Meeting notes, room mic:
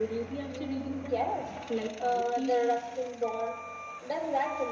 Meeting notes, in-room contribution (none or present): none